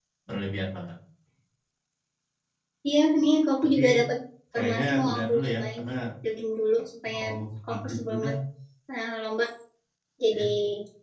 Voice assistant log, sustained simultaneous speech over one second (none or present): present